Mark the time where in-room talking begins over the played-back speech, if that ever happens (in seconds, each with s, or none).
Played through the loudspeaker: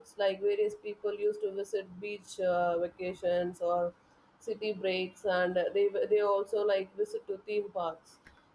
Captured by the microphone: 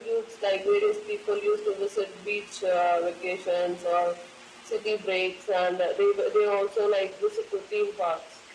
none